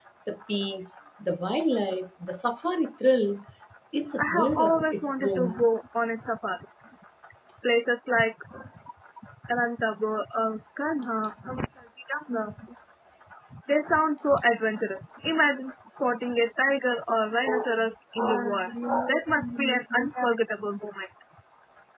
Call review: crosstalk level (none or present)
present